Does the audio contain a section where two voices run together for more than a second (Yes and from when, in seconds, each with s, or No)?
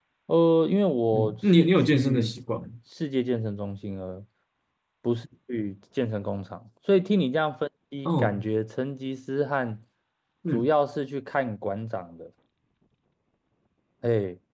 Yes, from 1.1 s